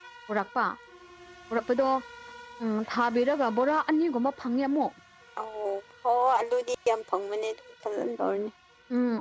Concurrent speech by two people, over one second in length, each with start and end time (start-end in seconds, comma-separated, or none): none